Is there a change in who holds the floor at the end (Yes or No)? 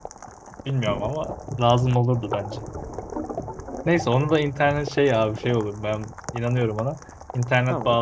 No